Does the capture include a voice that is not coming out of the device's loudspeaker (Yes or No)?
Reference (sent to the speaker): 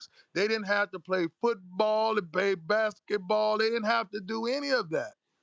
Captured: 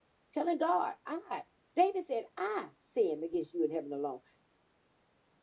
Yes